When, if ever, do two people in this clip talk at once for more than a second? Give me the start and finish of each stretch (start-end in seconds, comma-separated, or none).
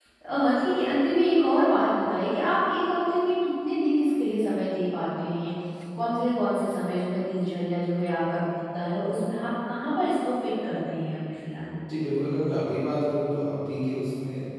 none